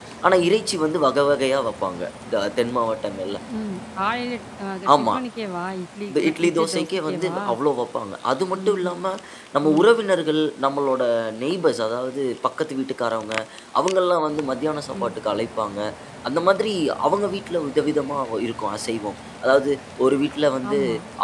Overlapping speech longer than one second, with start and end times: 6.1-7.4

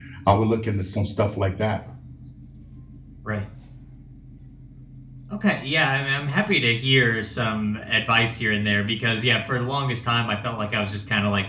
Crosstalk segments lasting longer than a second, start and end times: none

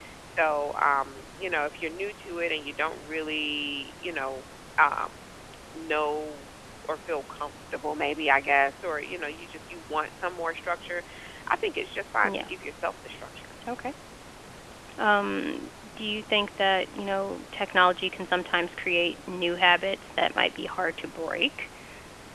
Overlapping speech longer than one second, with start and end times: none

